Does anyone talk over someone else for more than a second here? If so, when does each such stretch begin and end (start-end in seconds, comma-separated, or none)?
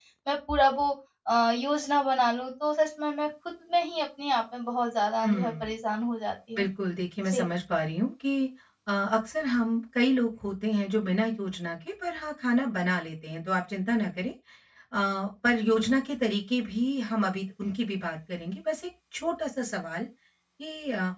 none